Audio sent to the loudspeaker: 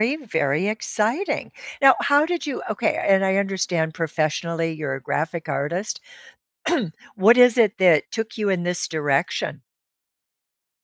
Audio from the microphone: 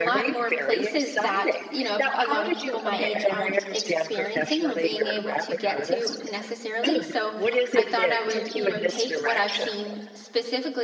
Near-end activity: present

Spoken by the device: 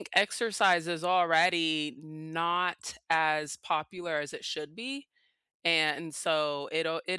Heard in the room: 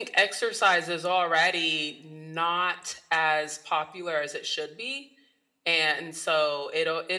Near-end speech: none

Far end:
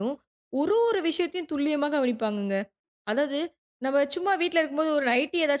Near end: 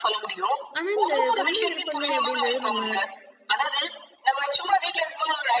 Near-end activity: present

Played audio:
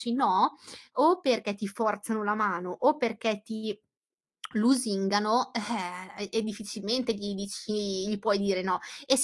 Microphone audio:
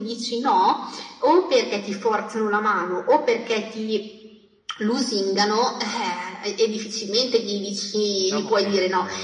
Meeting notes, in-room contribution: present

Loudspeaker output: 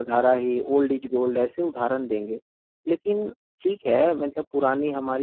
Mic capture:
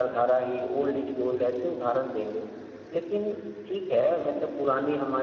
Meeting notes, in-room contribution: none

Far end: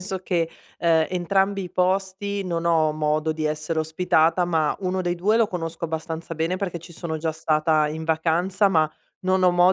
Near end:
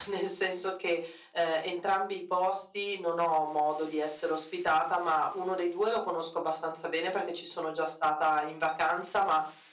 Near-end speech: none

